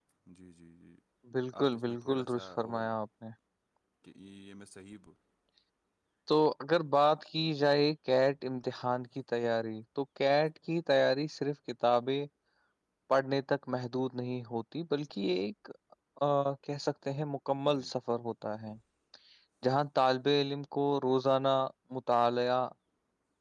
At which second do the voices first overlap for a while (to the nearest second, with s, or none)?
2 s